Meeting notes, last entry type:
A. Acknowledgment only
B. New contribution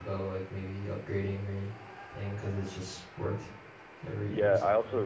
B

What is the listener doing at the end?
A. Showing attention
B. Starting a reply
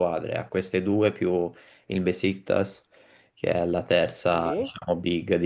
A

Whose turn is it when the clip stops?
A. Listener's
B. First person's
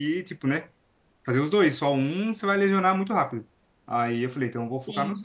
B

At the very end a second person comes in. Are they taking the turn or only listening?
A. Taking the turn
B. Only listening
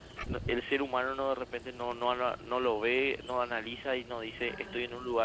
B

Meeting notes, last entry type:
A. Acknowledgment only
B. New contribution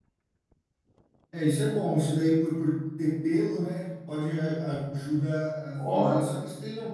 A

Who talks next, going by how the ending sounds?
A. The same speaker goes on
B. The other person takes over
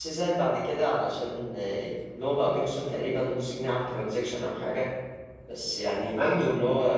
A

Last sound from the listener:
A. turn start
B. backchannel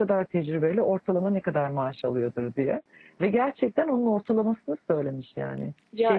A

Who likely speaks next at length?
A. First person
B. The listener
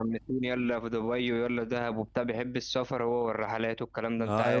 B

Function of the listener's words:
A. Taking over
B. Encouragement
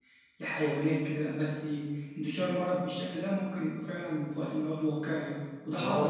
A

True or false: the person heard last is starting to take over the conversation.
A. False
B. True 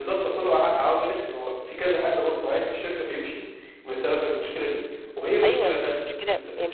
B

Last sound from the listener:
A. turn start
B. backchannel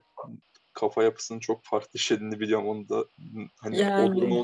B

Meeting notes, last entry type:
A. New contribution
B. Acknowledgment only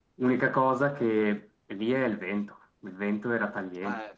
B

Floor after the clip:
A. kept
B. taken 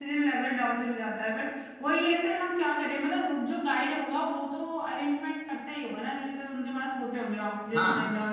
B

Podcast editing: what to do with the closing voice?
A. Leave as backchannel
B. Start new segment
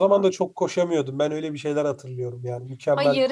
B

